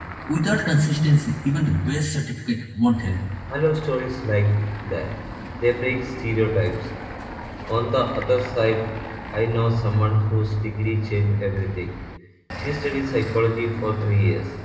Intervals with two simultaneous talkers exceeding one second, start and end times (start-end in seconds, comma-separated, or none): none